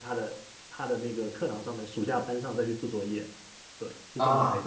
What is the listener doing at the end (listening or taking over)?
taking over